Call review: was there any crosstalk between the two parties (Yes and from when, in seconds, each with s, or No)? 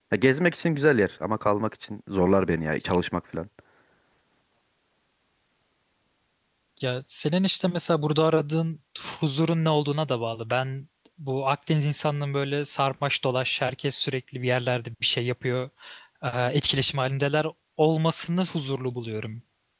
No